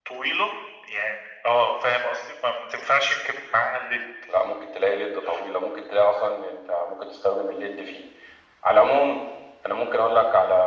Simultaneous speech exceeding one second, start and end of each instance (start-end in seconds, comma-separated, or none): none